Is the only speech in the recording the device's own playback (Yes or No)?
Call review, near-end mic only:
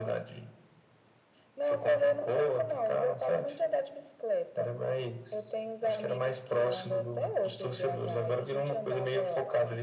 Yes